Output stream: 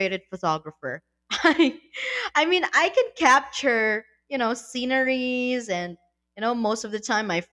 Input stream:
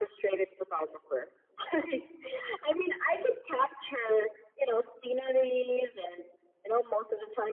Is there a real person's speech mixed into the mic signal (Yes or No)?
No